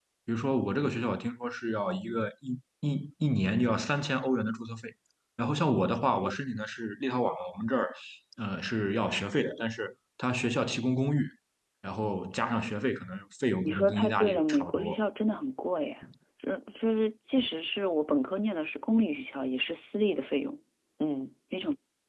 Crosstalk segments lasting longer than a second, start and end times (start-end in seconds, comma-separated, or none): 13.6-15.0